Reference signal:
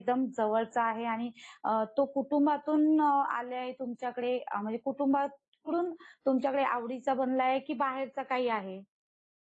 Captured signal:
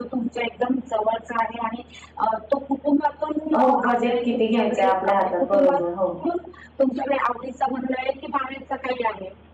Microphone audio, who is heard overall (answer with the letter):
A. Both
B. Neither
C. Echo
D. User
A